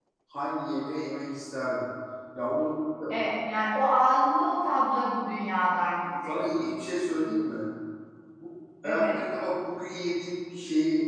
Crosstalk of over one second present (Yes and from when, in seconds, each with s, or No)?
No